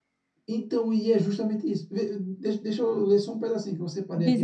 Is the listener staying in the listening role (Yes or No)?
No